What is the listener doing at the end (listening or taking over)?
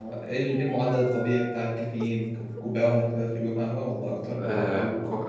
taking over